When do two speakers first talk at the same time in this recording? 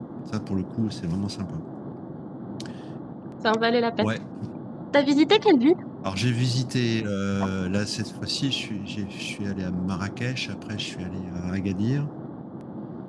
none

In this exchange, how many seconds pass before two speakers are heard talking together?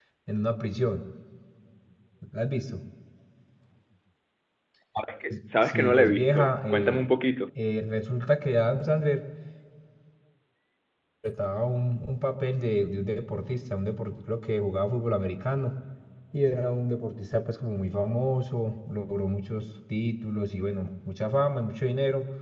6 s

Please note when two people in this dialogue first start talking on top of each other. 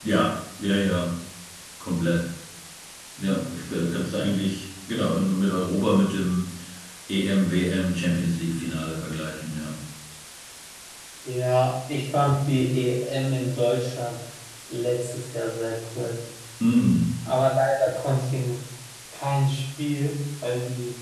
none

